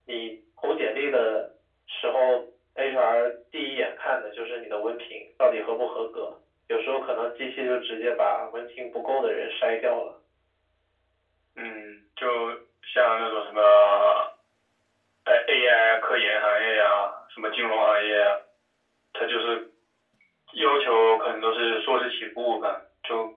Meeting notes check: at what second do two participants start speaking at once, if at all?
none

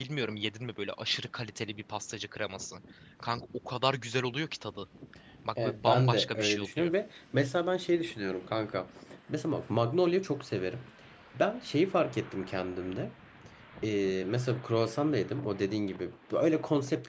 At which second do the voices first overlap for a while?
5.6 s

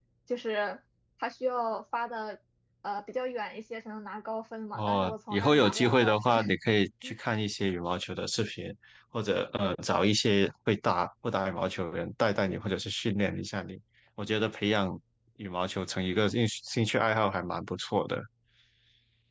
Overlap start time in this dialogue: 4.7 s

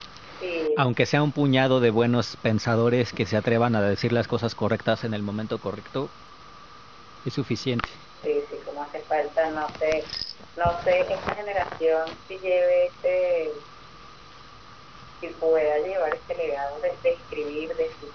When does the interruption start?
none

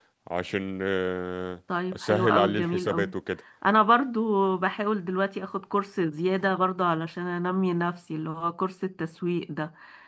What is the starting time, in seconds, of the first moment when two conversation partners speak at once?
1.9 s

